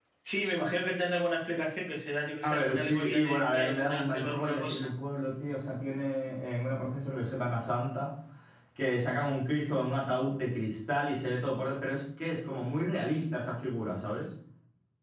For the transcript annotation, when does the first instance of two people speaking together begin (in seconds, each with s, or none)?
2.4 s